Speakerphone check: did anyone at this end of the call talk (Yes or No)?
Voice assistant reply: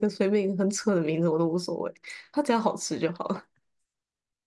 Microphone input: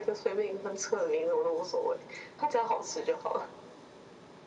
No